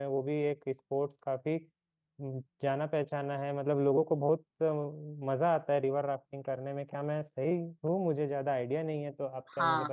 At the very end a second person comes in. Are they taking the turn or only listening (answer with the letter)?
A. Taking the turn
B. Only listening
A